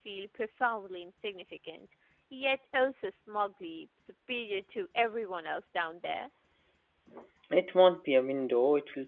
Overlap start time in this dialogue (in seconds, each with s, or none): none